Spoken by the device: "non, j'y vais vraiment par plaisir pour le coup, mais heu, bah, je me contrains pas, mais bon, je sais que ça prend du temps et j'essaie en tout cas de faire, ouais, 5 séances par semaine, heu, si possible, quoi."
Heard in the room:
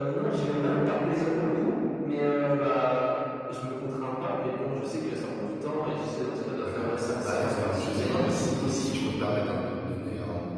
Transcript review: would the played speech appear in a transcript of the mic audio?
Yes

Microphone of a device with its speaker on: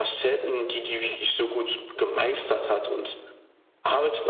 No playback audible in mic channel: No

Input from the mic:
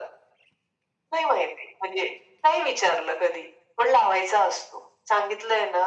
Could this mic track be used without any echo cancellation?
No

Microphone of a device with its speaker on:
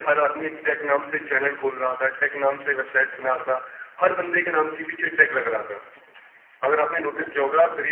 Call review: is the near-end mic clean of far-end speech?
No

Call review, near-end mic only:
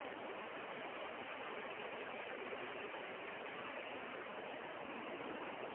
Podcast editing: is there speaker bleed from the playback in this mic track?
No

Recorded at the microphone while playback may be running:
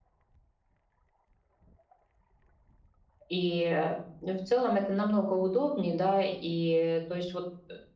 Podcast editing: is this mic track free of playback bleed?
Yes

